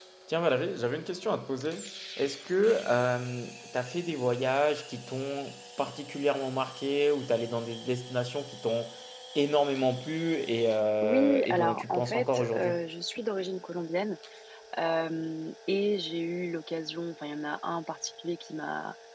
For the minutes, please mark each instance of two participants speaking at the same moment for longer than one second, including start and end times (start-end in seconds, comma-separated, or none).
11.0-12.7